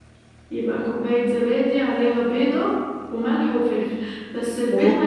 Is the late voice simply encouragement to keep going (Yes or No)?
Yes